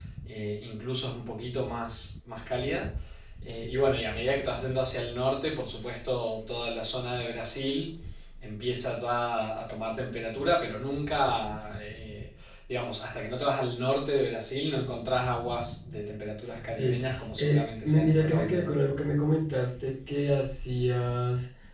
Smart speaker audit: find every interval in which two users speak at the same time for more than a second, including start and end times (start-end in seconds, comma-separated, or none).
17.4-18.8